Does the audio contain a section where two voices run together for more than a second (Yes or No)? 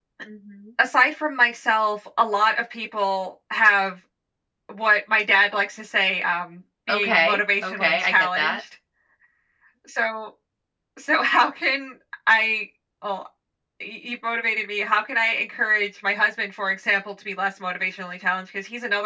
Yes